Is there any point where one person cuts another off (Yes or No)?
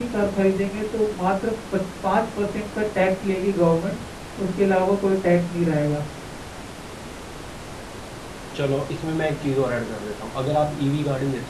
No